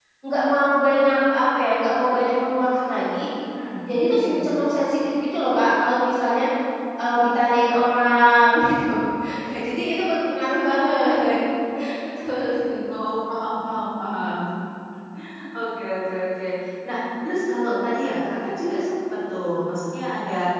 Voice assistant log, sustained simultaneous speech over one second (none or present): none